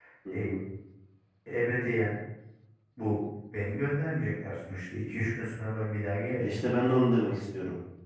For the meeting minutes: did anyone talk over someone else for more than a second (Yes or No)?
No